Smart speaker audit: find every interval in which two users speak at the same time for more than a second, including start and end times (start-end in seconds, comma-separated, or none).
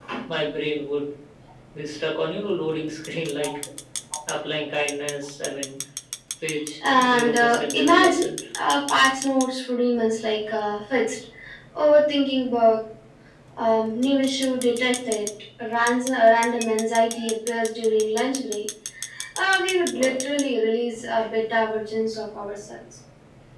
6.9-8.3